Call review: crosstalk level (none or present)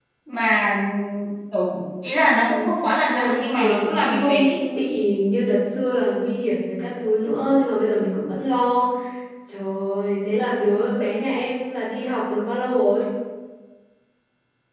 present